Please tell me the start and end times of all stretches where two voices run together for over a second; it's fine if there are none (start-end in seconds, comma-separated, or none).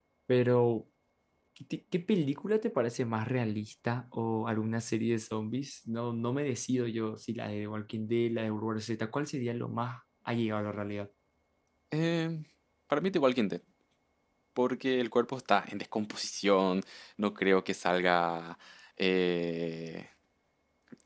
none